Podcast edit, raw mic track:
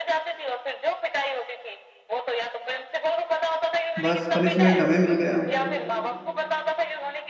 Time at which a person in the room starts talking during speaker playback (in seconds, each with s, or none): 4.0 s